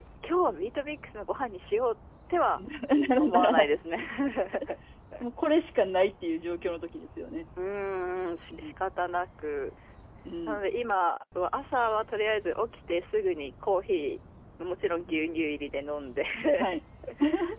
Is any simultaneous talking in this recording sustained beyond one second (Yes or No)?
No